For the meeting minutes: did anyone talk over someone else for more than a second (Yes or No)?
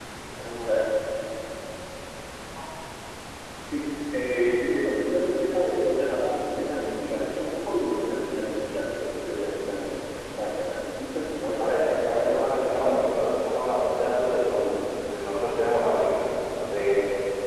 Yes